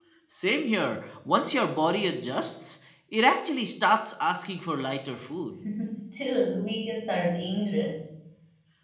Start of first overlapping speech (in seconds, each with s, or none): none